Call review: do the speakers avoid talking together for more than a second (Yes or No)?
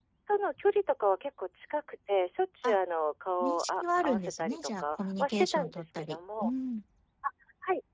No